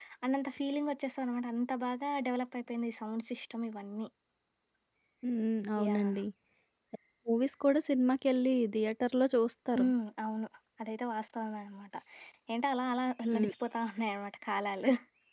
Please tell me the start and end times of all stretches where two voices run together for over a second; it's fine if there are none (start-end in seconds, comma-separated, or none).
none